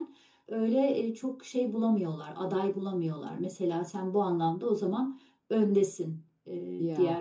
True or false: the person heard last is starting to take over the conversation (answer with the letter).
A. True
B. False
B